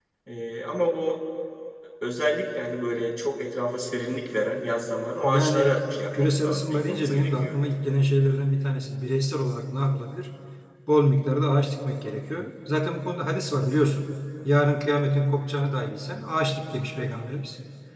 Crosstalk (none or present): present